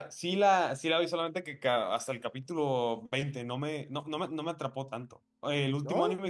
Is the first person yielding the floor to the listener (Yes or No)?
No